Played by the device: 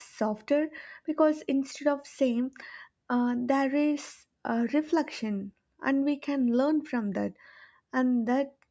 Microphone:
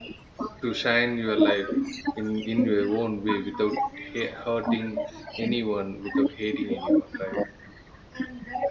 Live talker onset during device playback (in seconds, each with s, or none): 0.6 s